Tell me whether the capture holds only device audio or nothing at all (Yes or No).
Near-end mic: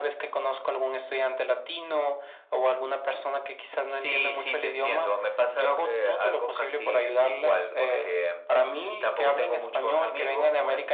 Yes